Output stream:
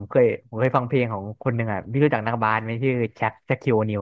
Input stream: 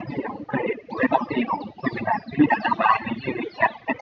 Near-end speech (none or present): none